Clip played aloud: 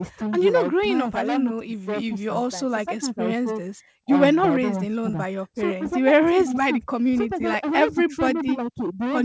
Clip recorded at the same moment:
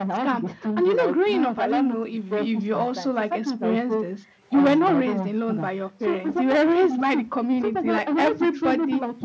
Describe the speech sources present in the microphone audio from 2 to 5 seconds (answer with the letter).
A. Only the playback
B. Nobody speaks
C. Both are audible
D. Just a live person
A